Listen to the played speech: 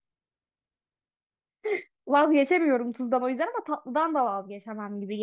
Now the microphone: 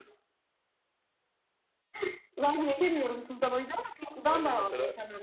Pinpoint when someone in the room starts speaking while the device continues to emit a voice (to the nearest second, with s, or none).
4 s